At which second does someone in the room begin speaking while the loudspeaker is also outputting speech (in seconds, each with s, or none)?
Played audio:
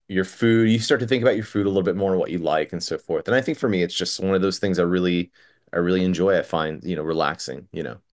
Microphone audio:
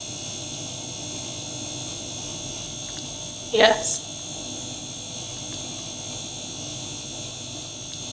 3.5 s